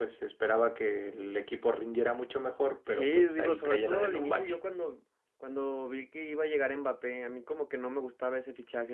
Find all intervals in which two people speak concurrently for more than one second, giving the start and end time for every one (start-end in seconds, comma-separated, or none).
2.9-4.6